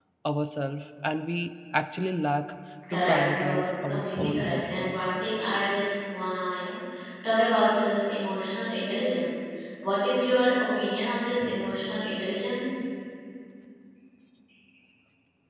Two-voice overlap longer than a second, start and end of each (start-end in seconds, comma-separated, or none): 2.9-5.1